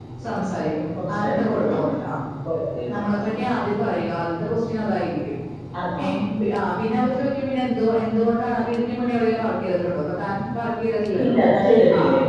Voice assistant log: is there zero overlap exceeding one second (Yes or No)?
Yes